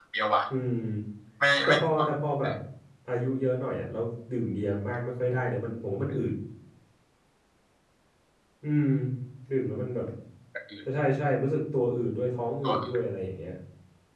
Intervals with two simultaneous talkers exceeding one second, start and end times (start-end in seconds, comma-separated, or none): none